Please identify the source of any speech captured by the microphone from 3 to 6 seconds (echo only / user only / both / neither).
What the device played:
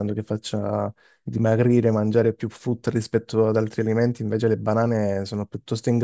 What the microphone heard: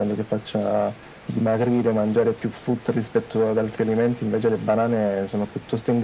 echo only